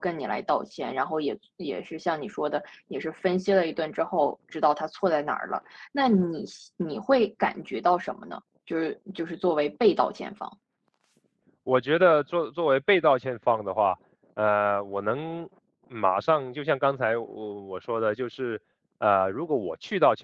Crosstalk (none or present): none